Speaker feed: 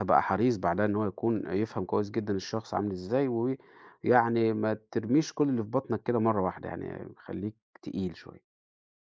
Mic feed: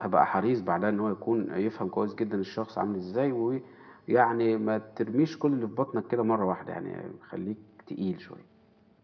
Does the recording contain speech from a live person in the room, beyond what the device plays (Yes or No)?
No